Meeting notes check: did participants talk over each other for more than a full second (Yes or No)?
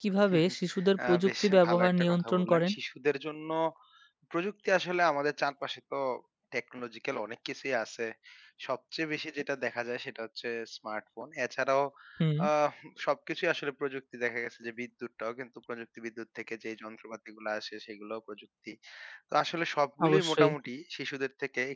Yes